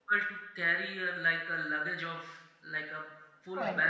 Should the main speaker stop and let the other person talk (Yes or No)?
No